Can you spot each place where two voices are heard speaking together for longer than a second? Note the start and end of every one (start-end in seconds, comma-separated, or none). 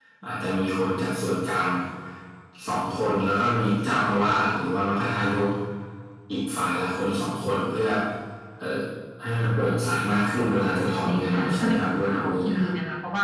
11.1-12.7